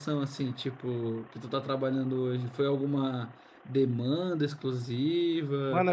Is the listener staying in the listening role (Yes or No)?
No